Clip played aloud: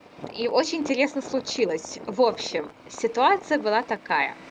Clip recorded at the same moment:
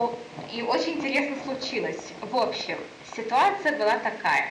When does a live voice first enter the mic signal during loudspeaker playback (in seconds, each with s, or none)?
none